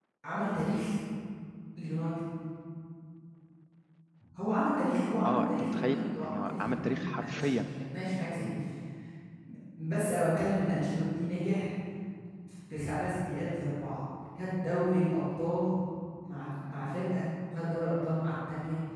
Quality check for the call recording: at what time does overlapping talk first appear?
5.2 s

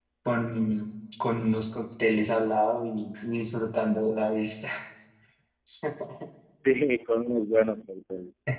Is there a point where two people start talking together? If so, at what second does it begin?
none

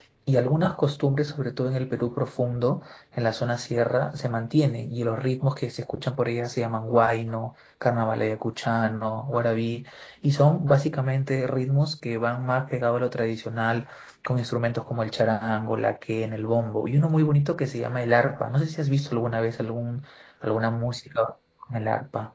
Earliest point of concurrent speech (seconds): none

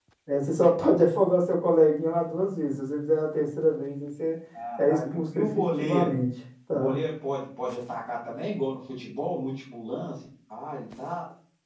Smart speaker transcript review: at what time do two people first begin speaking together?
4.9 s

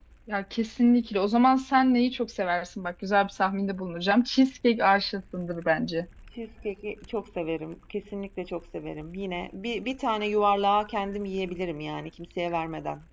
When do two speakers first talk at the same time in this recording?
none

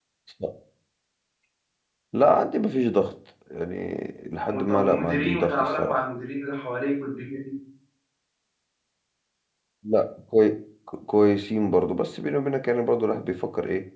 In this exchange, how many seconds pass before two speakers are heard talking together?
4.7 s

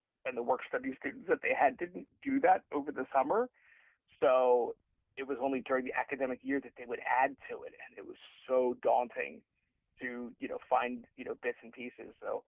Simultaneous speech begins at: none

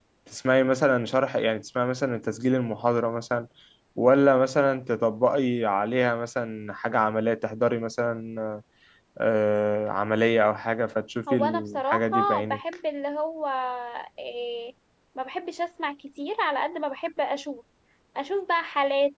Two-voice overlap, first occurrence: 11.3 s

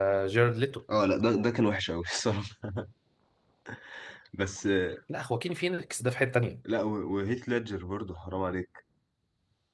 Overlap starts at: none

